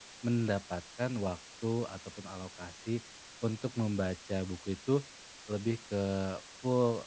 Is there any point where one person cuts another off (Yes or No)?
No